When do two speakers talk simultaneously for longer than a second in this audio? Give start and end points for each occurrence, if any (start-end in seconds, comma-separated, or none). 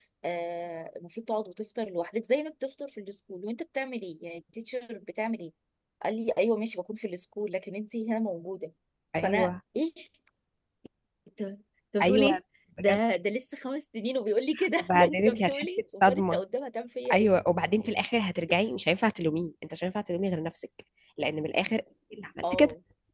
14.8-16.4